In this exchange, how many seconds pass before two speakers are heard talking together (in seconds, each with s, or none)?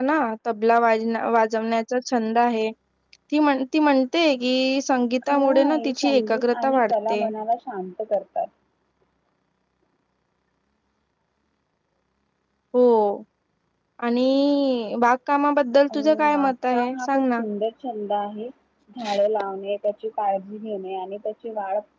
5.3 s